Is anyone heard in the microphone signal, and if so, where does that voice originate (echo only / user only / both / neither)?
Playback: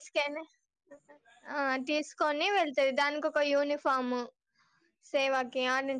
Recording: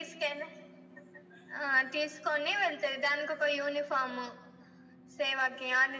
echo only